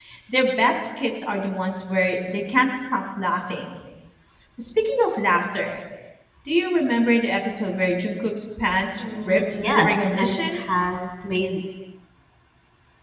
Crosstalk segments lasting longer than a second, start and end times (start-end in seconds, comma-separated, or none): 8.9-10.6